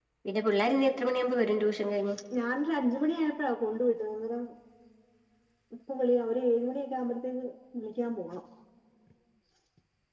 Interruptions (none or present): none